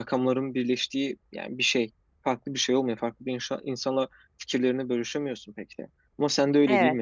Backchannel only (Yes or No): Yes